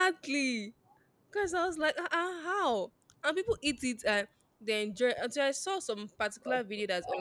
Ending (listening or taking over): taking over